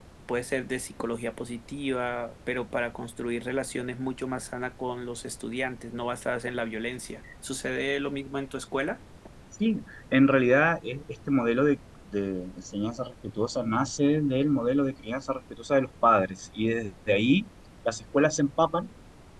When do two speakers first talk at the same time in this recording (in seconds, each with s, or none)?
none